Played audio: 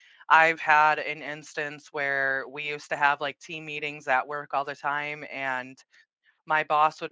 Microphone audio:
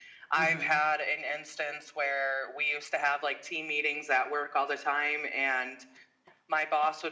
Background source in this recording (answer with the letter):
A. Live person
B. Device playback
A